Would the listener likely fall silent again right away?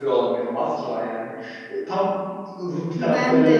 No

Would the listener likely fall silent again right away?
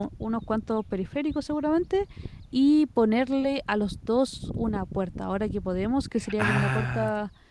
Yes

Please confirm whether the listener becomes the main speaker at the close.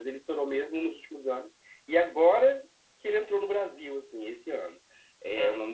No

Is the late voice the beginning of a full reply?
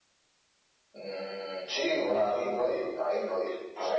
No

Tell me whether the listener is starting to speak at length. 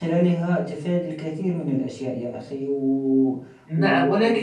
Yes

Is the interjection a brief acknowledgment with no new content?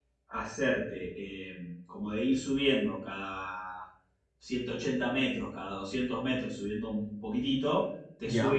Yes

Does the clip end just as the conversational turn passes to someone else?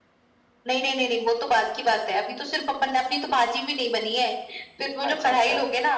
No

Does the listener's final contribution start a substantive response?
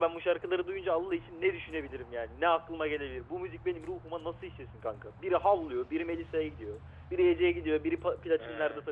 Yes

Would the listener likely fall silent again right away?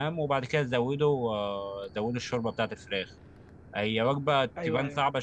Yes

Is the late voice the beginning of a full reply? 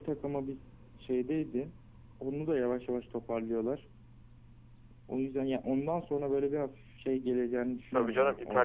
Yes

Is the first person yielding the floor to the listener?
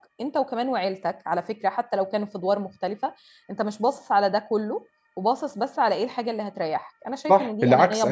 Yes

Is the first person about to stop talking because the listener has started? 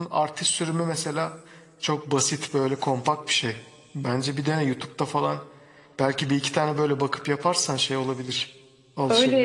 Yes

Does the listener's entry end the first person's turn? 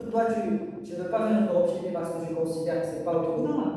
Yes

